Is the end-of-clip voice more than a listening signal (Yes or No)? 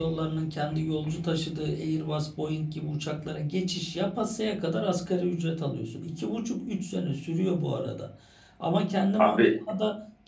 No